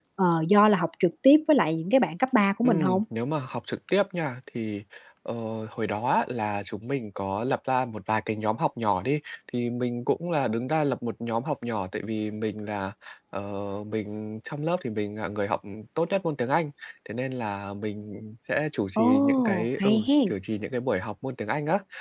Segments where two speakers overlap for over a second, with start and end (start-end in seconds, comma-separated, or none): 19.0-20.3